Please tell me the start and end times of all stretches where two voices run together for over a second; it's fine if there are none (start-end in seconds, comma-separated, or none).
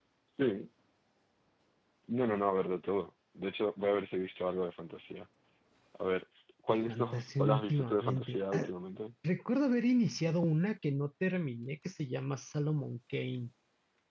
6.7-8.7